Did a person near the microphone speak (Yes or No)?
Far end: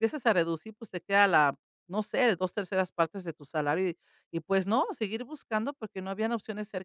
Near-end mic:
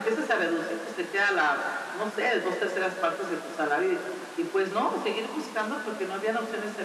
No